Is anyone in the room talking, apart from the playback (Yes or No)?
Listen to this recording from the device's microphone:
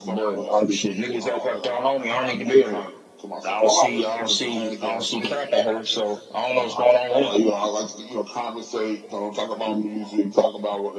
No